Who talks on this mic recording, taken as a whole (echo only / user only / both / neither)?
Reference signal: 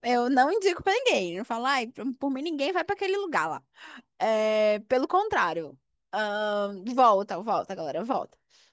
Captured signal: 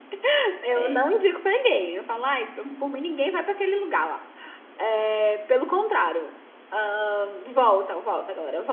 both